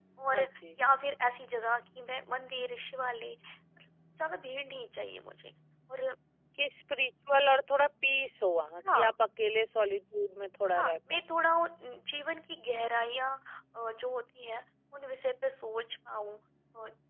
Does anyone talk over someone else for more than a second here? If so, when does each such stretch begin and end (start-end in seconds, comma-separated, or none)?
none